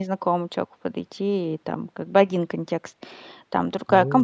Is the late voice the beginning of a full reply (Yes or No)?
Yes